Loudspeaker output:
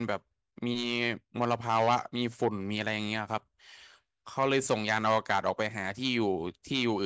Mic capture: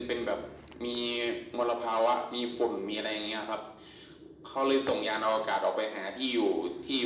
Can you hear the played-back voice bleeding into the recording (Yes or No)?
Yes